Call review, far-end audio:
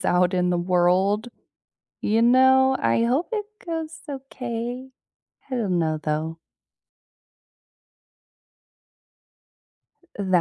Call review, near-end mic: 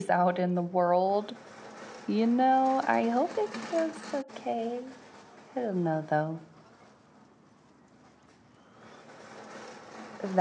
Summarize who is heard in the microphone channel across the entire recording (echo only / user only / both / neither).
echo only